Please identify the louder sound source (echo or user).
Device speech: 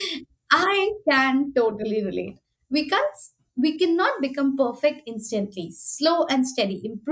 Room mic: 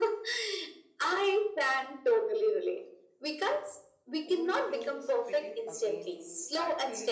echo